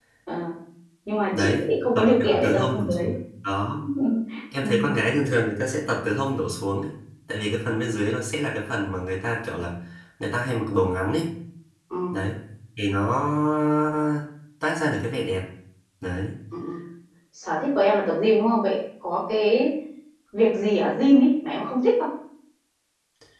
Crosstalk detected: Yes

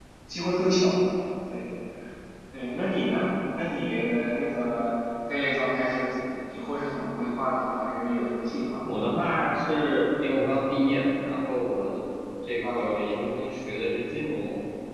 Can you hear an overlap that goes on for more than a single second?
No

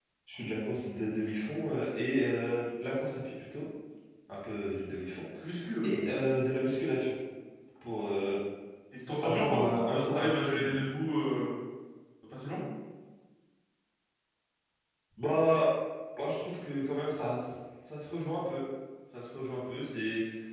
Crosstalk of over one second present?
Yes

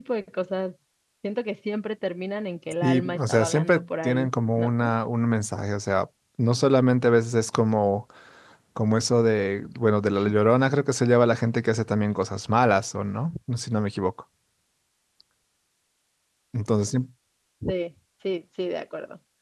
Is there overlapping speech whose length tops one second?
Yes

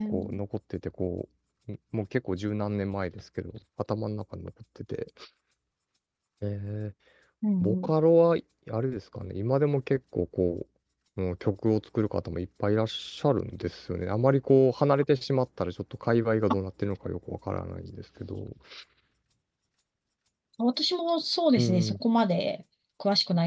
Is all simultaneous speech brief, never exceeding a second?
Yes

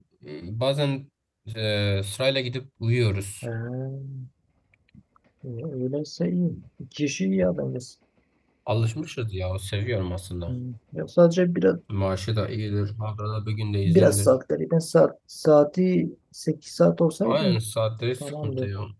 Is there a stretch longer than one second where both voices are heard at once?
No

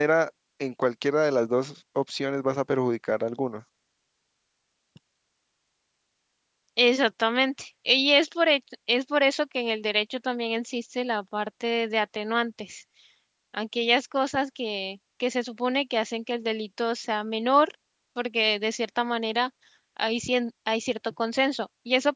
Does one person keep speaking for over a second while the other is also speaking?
No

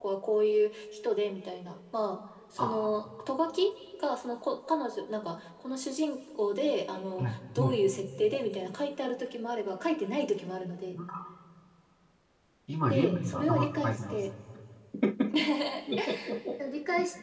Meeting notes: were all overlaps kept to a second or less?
No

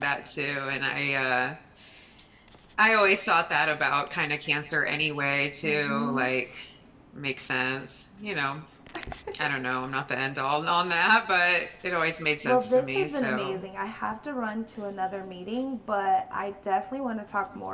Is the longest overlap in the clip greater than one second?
Yes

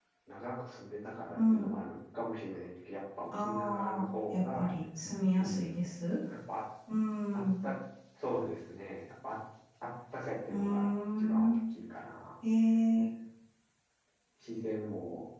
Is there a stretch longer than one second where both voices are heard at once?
Yes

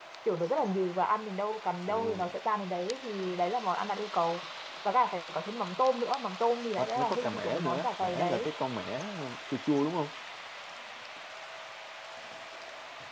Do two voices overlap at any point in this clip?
Yes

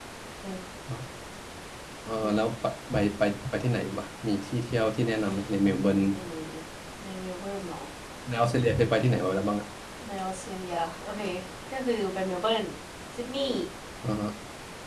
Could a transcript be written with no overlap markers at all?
Yes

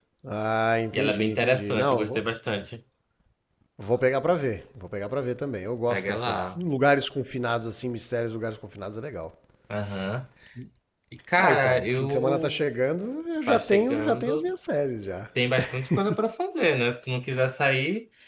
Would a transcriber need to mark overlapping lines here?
Yes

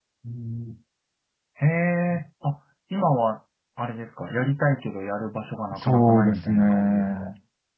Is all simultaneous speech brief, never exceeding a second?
No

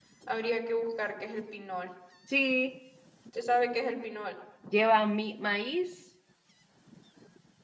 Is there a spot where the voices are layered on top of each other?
No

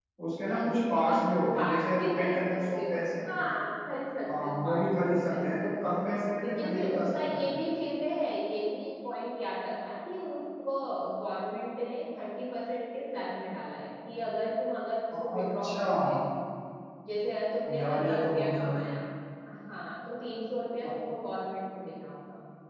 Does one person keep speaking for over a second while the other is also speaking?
Yes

